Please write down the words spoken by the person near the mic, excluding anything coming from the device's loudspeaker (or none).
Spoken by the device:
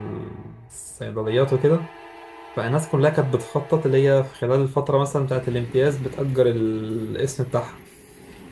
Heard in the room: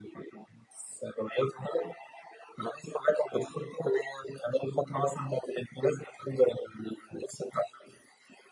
none